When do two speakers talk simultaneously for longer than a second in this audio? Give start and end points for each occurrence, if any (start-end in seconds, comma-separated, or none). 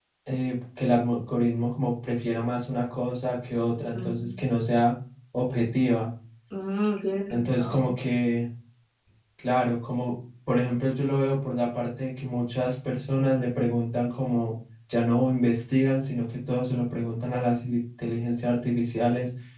none